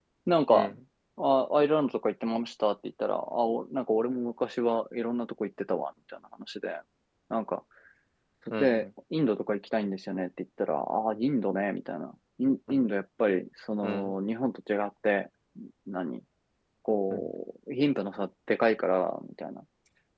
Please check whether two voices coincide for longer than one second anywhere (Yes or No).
No